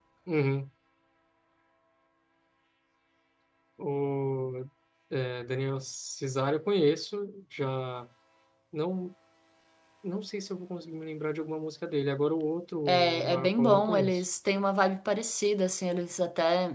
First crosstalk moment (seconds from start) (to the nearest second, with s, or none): 13 s